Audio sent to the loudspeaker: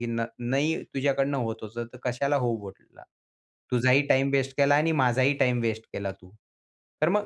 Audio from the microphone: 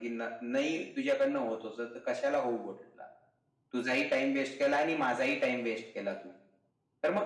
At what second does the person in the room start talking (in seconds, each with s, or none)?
none